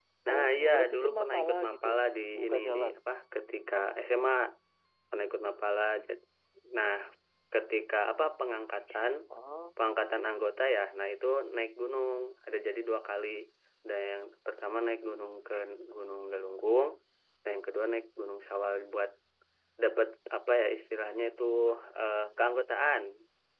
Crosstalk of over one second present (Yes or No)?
Yes